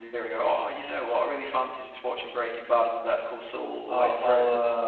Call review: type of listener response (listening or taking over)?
taking over